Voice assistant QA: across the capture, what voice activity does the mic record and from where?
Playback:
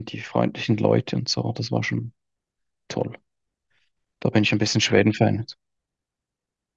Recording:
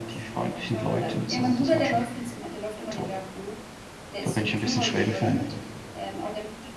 both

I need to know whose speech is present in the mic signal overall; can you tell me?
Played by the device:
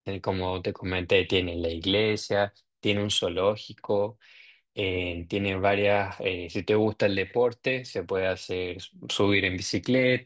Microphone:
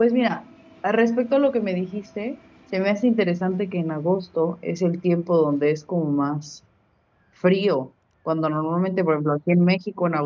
user only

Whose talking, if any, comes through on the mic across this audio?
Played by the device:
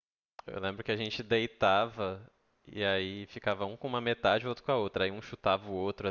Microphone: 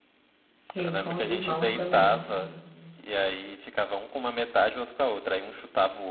both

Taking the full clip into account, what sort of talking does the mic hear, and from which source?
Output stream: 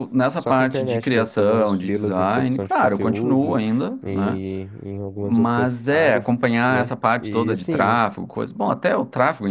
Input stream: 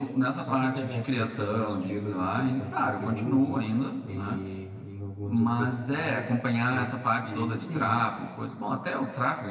echo only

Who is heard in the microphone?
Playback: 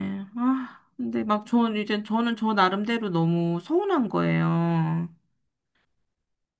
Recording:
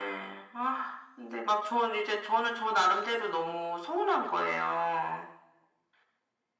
echo only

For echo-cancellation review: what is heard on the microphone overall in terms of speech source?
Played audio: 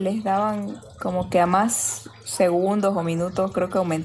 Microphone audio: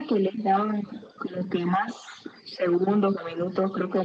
echo only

